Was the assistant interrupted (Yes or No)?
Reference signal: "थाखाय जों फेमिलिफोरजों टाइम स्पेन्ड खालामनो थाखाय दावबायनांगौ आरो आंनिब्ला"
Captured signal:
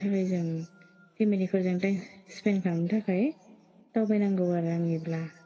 No